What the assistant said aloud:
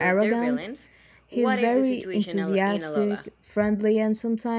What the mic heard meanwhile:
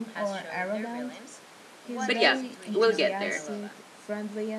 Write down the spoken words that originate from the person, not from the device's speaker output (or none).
But yeah, we'll get there.